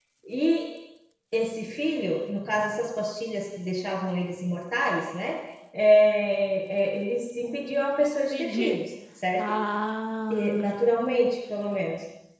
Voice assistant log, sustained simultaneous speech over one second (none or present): none